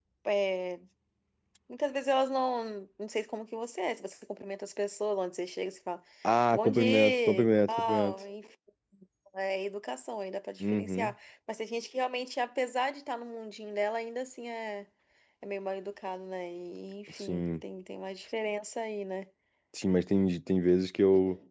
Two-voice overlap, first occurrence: 6.5 s

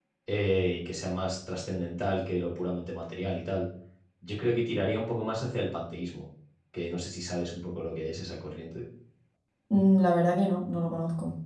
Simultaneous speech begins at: none

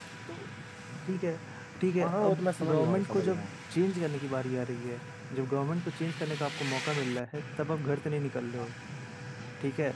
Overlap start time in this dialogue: 2.0 s

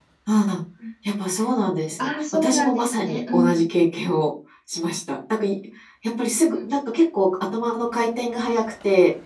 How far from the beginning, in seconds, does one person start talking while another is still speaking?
2.0 s

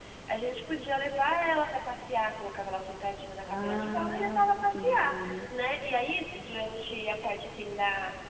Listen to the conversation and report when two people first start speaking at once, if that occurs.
3.5 s

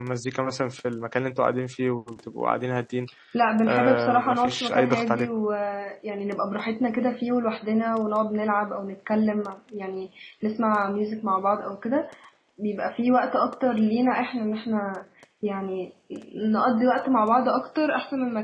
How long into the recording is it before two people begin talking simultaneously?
3.7 s

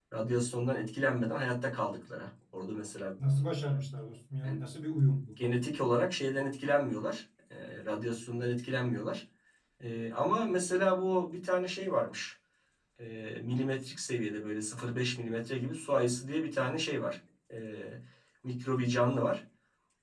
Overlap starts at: none

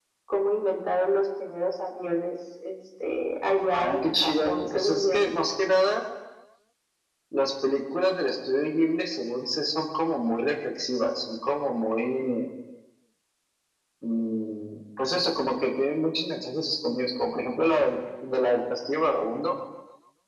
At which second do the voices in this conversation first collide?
3.7 s

